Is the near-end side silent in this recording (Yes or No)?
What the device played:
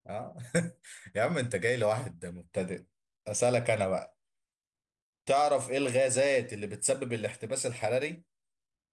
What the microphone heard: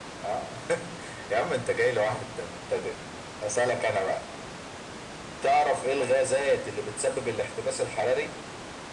Yes